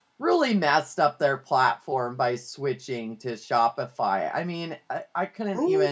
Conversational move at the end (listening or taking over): listening